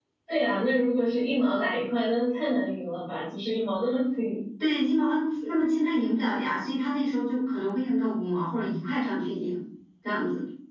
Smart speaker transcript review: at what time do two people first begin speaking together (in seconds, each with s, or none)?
none